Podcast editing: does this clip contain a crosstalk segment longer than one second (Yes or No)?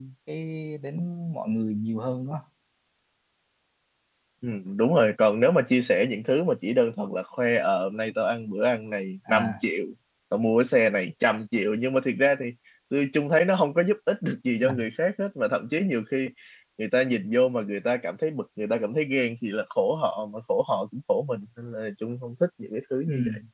No